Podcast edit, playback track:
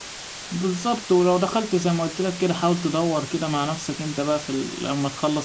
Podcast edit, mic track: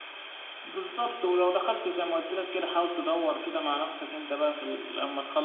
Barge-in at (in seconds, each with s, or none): none